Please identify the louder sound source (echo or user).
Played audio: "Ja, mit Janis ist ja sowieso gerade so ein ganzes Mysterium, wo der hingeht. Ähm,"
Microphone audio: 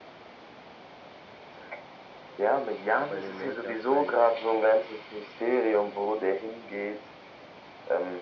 echo